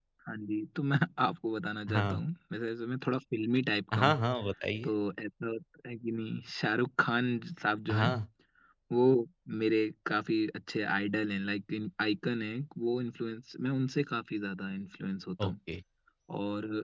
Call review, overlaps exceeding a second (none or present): none